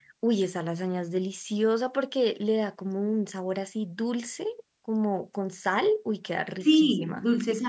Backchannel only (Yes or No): No